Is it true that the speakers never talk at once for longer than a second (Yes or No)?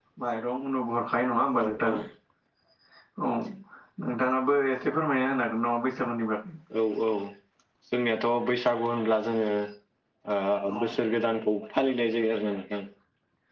Yes